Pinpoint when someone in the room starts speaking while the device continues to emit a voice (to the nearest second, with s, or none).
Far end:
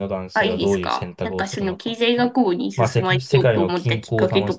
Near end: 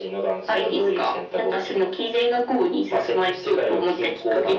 none